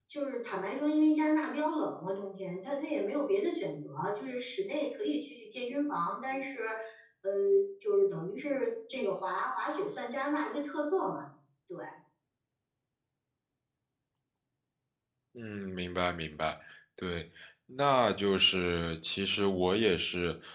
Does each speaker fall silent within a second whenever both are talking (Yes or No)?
Yes